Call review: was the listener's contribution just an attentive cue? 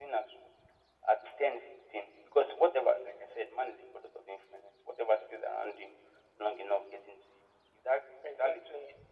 Yes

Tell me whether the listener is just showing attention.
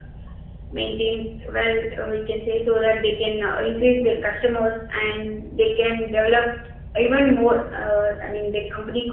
Yes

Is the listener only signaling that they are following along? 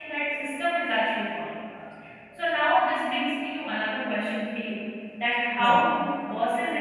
Yes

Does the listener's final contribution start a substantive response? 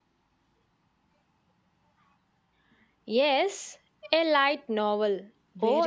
Yes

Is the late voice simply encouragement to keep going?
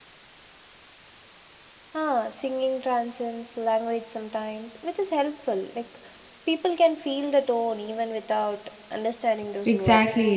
No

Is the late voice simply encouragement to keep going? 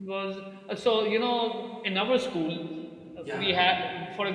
Yes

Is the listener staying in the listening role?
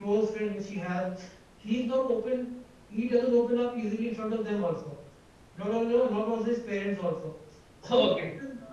Yes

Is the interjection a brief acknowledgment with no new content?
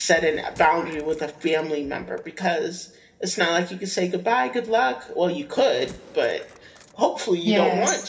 Yes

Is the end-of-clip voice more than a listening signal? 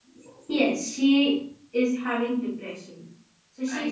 No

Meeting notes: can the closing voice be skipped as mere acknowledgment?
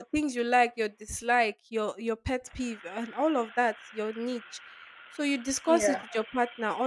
Yes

